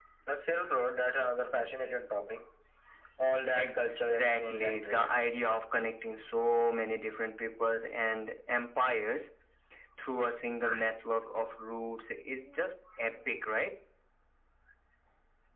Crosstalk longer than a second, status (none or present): present